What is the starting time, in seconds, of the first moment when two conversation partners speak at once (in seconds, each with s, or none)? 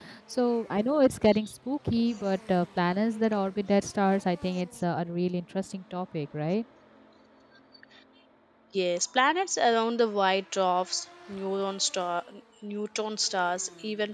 none